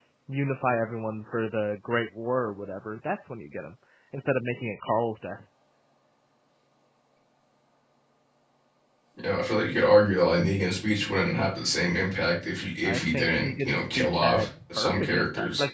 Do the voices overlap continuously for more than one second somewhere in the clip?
Yes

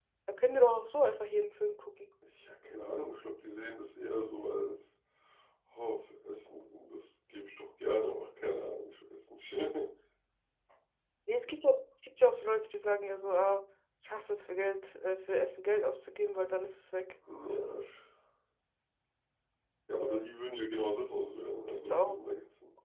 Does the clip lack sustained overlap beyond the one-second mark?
Yes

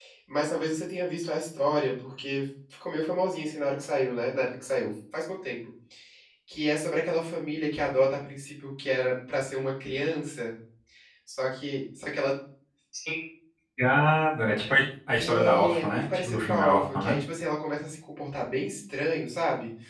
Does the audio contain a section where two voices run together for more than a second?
Yes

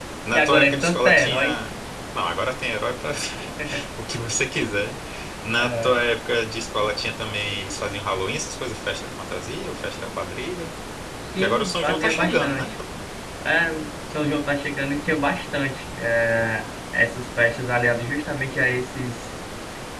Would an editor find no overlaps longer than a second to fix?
No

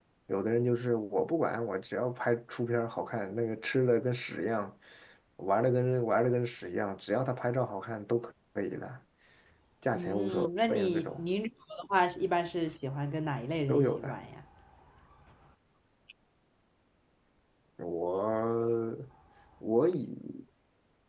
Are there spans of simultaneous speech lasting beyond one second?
Yes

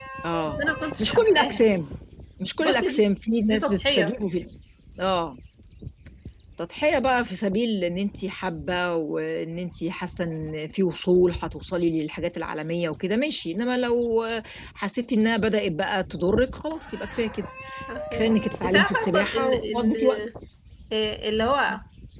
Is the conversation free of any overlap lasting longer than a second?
No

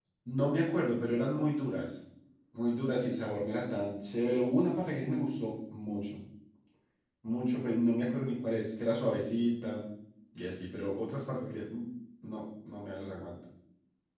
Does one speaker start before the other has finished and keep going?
No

